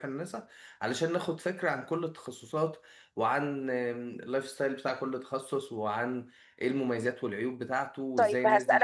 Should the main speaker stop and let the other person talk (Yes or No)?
Yes